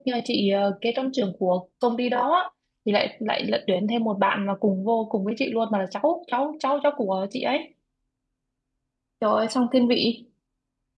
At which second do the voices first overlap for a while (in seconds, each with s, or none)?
none